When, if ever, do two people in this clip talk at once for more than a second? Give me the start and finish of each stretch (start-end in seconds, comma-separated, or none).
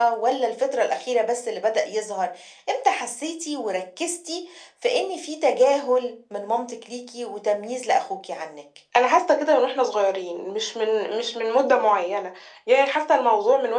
none